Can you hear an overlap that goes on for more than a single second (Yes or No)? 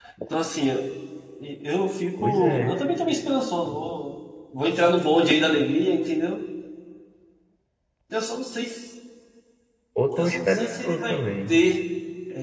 Yes